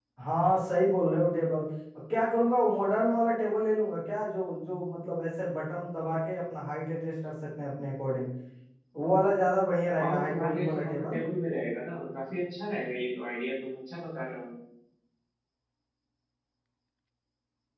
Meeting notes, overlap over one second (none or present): present